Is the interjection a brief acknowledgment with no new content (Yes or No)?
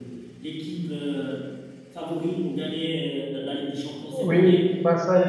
No